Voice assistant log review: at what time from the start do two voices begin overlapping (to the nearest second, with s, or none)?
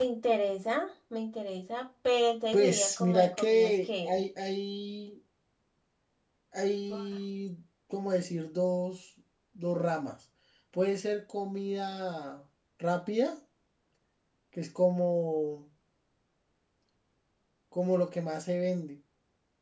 3 s